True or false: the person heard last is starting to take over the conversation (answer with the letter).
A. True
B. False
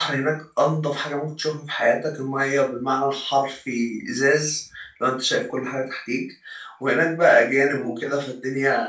B